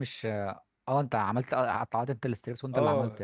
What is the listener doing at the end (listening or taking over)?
taking over